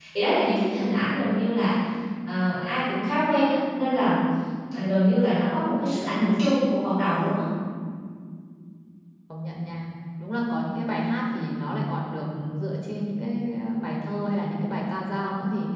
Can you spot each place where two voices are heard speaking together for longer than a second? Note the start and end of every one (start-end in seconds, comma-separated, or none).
none